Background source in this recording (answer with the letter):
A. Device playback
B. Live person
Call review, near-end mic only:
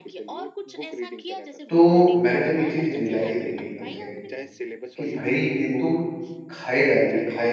A